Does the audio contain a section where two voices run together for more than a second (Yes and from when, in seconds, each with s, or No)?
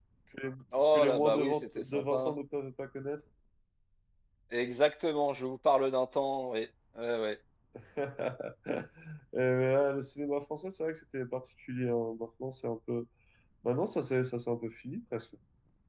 Yes, from 0.9 s